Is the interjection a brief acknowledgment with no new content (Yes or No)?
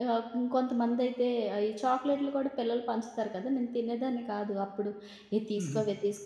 Yes